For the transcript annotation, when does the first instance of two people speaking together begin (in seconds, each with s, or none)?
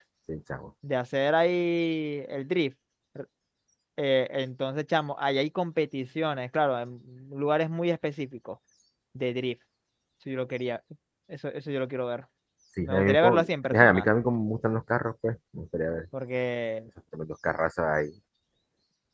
12.8 s